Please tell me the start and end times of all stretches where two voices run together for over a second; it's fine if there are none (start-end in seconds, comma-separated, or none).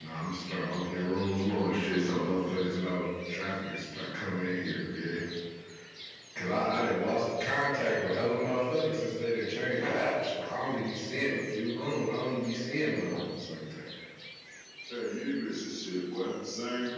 none